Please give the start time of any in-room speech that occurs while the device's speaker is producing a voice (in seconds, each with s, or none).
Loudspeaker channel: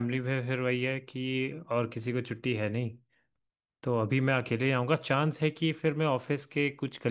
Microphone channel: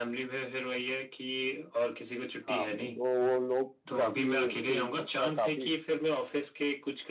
2.5 s